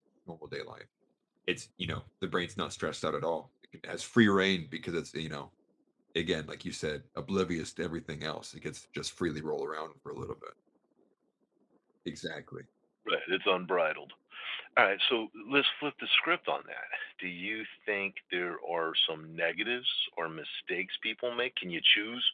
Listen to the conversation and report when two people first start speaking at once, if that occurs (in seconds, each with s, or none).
none